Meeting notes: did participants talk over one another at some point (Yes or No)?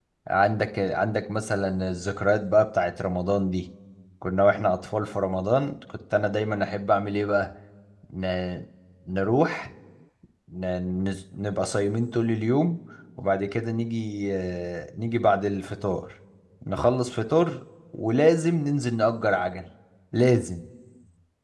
No